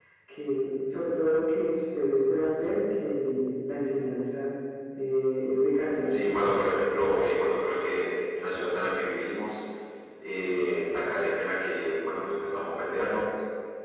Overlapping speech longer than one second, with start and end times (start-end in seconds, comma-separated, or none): none